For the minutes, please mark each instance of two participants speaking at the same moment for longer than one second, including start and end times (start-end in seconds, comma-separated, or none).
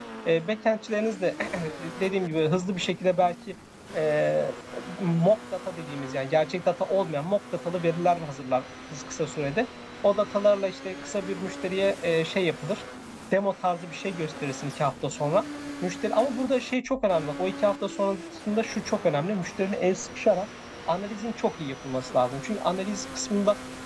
none